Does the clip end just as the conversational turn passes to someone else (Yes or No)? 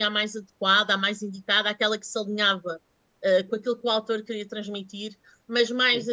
No